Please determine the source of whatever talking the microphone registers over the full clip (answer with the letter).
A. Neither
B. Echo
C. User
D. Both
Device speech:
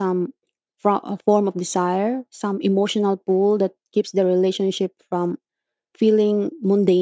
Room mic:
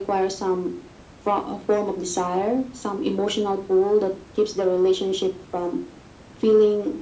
B